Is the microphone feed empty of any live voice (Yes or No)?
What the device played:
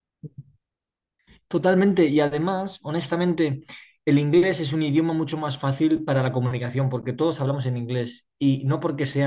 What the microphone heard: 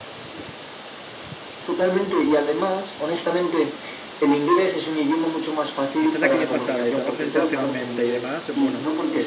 No